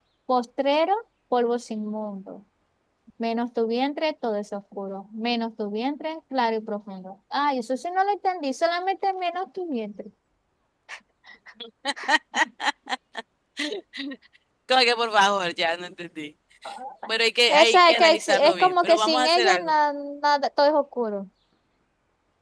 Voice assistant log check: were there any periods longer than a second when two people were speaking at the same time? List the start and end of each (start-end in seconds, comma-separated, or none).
17.5-19.7